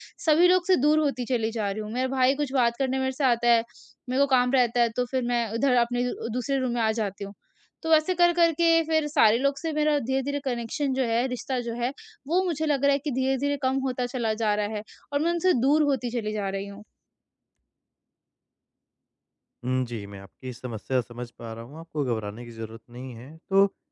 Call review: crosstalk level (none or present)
none